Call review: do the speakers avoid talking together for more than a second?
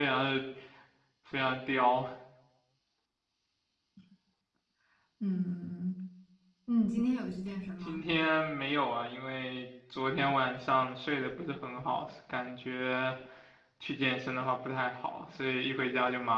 Yes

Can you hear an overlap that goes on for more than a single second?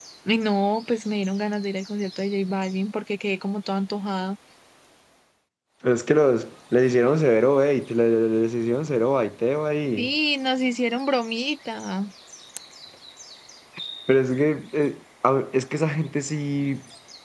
No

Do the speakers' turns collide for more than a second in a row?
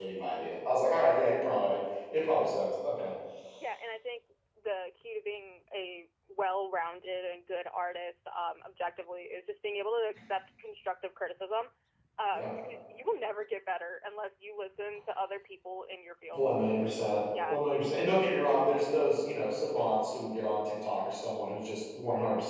No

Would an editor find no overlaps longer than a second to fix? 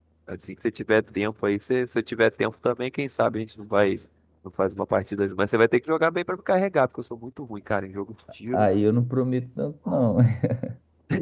Yes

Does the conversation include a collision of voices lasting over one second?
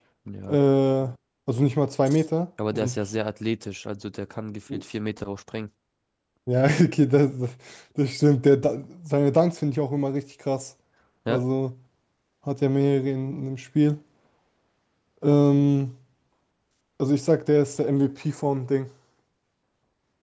No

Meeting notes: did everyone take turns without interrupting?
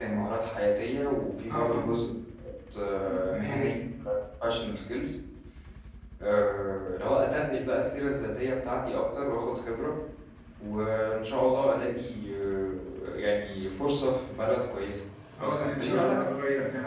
No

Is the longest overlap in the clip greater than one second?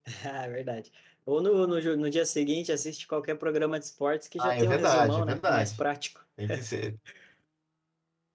Yes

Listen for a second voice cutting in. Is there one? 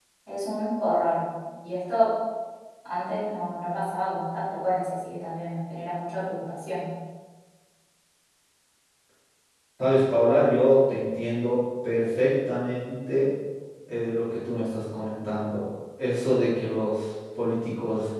No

